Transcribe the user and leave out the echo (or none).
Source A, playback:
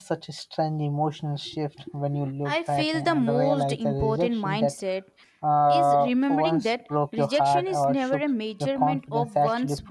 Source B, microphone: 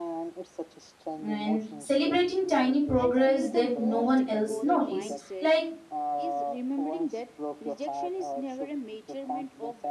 and celebrating tiny progress that no one else notice like